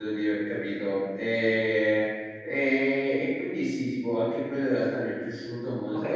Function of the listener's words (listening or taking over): taking over